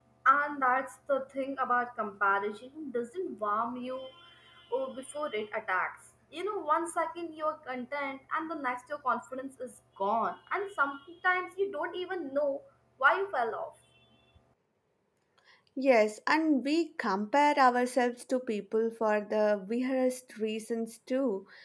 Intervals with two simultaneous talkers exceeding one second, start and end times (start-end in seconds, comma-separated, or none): none